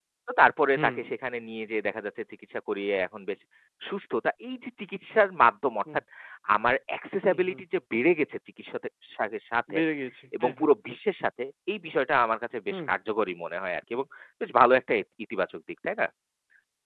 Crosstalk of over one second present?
No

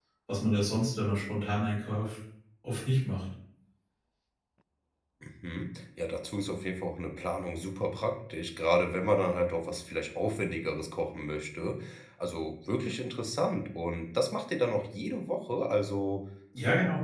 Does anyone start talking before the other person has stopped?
No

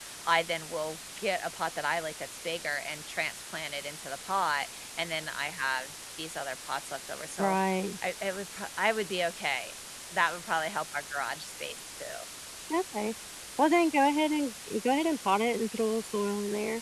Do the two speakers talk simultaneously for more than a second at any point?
No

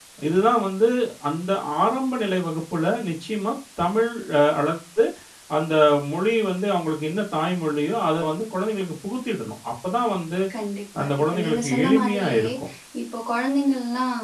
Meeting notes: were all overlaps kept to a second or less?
No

